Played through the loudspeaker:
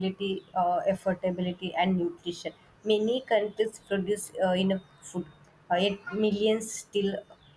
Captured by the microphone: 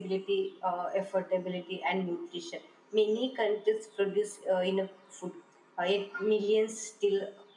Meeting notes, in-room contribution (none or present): none